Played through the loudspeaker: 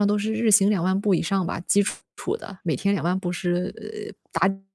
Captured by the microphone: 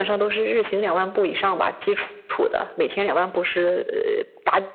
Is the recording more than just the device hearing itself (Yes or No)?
No